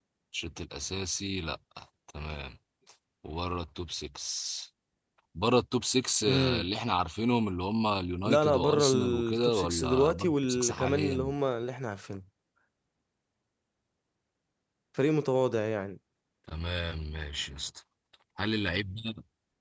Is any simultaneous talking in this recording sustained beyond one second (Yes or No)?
Yes